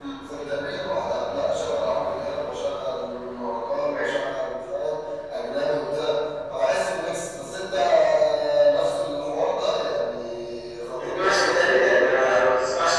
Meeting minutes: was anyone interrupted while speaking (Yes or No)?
Yes